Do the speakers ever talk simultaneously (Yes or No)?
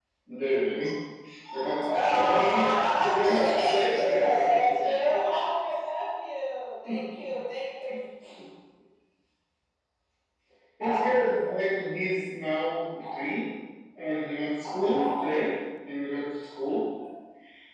Yes